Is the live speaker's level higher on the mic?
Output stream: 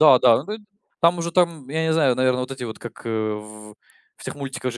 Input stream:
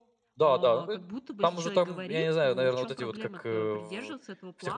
No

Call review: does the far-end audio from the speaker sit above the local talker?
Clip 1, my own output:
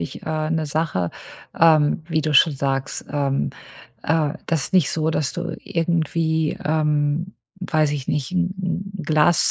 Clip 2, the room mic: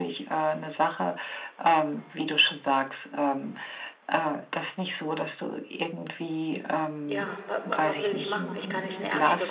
Yes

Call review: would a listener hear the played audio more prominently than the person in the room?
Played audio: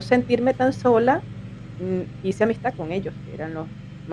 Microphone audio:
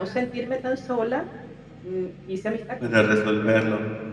No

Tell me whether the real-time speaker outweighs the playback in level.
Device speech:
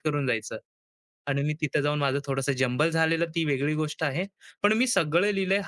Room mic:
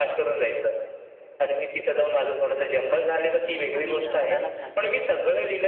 No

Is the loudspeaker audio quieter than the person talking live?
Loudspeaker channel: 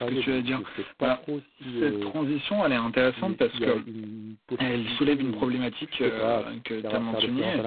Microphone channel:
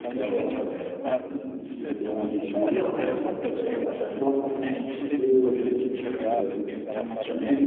Yes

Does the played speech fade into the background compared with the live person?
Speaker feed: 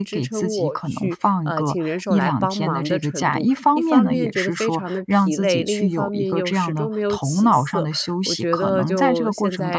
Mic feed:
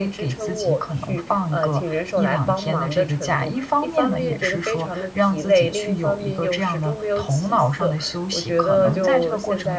No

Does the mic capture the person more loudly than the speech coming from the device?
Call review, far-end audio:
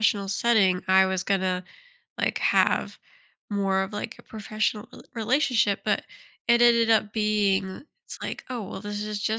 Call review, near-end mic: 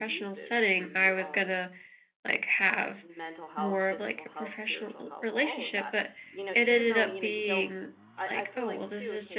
No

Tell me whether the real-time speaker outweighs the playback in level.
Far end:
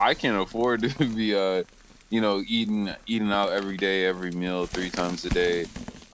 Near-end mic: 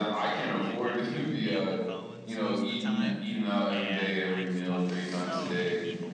No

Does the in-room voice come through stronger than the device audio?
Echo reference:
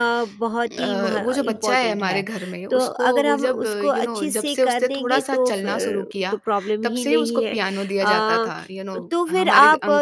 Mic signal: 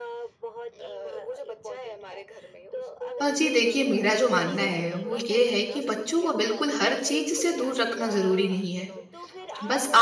Yes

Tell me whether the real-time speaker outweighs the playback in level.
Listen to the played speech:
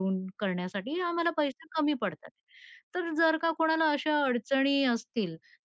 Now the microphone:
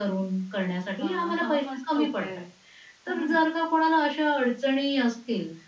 No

